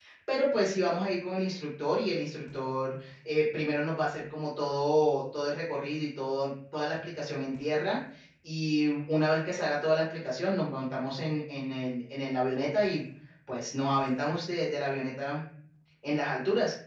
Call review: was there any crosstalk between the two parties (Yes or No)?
No